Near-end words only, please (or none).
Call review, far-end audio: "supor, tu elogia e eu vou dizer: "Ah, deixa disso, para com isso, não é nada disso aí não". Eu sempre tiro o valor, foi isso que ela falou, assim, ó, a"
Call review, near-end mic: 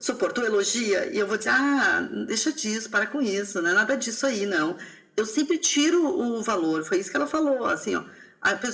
none